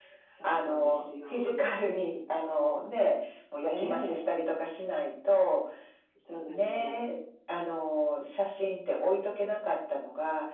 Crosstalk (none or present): present